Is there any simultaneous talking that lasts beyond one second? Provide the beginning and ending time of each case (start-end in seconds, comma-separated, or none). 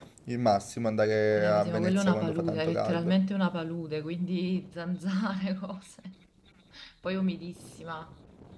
1.4-3.1